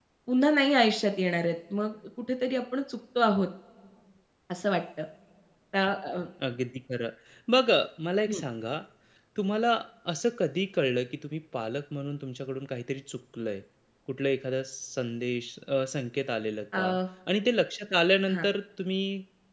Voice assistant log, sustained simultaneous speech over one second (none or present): none